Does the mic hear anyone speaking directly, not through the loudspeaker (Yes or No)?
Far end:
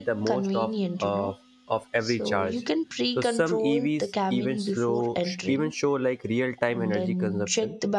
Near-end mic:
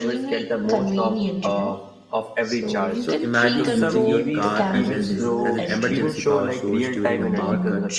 Yes